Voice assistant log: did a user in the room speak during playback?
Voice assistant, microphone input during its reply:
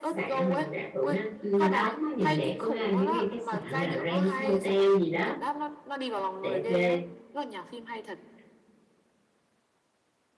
Yes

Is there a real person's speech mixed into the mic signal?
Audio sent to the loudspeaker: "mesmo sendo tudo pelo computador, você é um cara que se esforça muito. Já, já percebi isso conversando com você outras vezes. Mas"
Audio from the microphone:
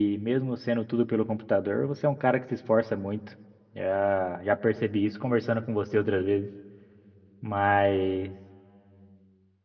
No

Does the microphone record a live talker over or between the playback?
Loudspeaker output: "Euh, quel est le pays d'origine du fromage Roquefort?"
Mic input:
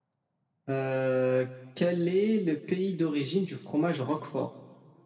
No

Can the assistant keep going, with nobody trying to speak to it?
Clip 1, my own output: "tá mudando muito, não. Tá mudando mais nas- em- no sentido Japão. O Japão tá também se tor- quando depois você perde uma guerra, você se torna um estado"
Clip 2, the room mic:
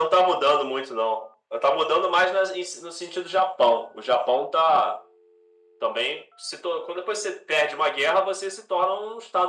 Yes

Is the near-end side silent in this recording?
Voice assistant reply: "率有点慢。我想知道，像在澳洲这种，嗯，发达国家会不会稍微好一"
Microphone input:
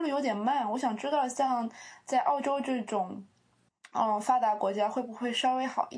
Yes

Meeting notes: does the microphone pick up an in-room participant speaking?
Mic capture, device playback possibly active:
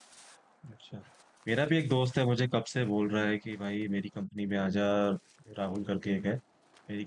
Yes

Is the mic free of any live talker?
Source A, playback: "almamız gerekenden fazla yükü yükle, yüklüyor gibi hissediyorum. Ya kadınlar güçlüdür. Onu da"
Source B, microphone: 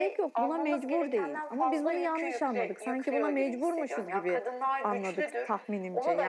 No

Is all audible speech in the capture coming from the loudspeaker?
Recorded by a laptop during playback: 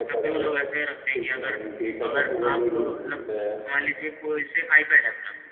No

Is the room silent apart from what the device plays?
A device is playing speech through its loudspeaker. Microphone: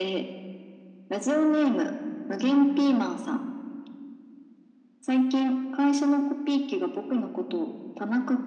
Yes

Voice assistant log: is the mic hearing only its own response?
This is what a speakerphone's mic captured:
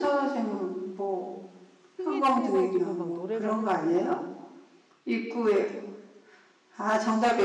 No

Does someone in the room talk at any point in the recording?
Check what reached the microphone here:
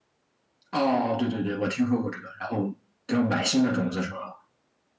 No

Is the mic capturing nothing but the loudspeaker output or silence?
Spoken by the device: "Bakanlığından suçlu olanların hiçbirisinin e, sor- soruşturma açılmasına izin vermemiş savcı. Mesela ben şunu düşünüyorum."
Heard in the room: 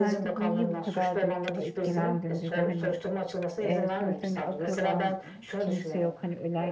No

